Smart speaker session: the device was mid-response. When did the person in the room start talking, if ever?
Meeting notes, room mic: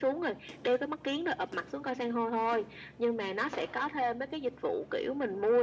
none

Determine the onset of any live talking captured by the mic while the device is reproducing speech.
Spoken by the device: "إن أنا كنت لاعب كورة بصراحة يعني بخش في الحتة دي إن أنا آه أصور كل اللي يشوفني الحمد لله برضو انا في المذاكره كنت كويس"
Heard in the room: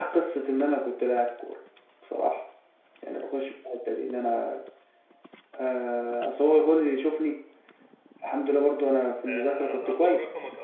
9.2 s

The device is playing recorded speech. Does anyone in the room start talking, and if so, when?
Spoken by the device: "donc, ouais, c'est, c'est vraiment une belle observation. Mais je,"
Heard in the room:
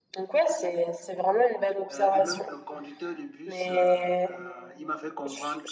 1.9 s

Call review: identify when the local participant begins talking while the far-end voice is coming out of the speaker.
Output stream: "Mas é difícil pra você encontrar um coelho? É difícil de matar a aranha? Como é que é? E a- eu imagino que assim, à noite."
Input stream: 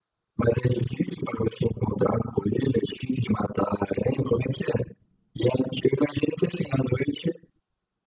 none

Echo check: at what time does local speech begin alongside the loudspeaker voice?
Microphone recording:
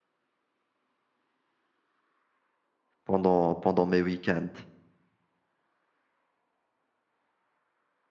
3.0 s

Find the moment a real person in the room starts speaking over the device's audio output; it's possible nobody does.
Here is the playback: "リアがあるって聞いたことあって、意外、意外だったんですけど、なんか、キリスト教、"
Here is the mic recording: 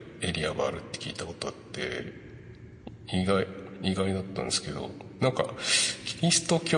none

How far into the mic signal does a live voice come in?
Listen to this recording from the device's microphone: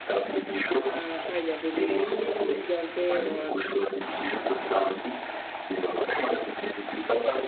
0.7 s

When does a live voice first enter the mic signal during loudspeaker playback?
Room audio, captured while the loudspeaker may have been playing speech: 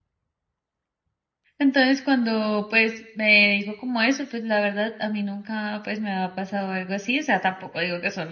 1.6 s

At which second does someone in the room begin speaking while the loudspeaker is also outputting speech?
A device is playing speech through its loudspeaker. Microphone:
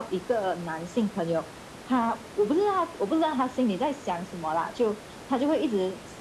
none

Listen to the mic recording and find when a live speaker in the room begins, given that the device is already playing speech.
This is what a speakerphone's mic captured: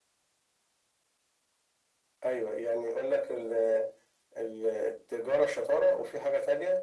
none

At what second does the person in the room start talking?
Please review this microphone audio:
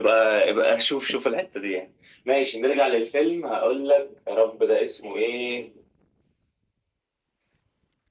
none

